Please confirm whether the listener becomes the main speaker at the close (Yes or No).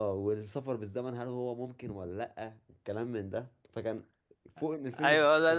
Yes